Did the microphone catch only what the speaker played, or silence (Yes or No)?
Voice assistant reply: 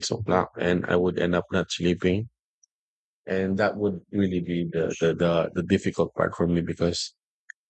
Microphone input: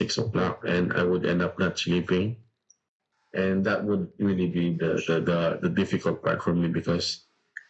Yes